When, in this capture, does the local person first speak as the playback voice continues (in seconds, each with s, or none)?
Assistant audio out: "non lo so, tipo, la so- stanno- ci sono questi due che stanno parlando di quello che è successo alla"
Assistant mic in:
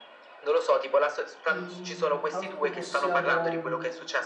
1.5 s